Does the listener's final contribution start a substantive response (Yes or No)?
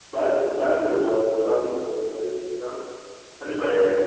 No